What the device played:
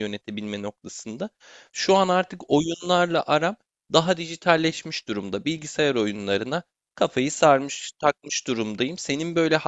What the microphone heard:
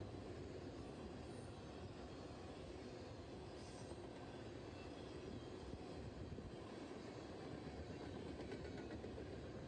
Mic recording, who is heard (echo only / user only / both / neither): neither